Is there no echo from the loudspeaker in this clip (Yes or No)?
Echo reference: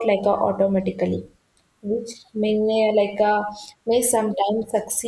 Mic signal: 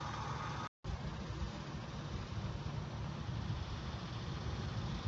Yes